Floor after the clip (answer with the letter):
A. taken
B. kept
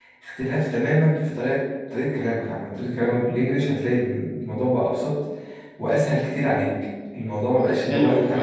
A